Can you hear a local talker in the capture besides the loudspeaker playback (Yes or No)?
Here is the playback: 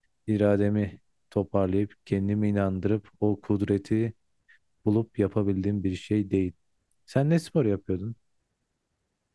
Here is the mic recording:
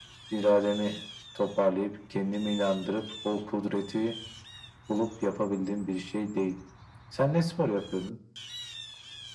No